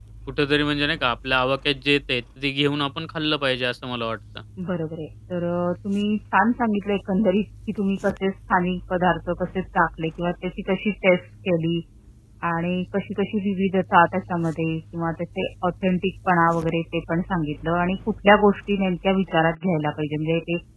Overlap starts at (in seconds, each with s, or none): none